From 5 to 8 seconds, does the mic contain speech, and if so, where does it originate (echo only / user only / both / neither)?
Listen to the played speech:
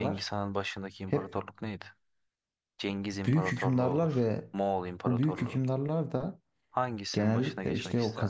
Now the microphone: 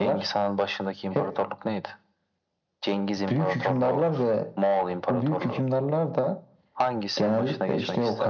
echo only